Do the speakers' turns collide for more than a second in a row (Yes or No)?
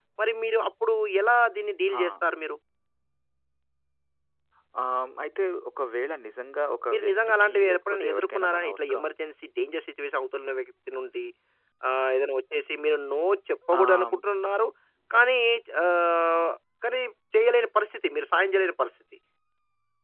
Yes